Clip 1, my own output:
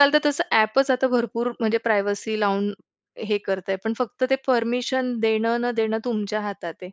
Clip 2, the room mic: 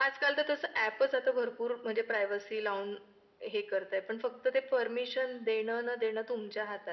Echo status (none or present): present